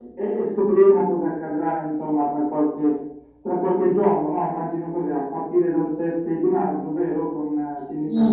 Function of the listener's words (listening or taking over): taking over